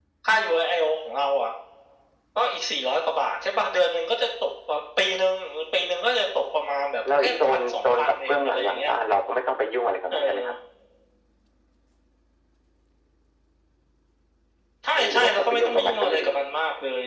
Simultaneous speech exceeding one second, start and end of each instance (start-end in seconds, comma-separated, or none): 7.2-8.9, 15.0-16.4